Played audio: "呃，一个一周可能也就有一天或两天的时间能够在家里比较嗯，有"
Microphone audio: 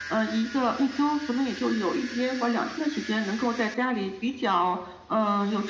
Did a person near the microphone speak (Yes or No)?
No